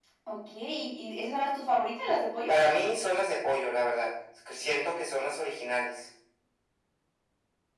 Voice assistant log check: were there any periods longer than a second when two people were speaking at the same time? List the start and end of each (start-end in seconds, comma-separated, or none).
none